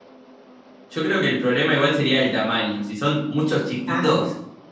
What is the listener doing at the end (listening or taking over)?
listening